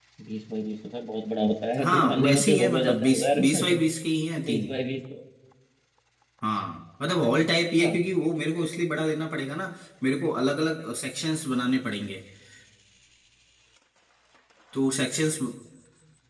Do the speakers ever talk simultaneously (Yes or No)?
Yes